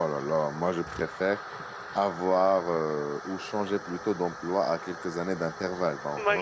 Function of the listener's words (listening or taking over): taking over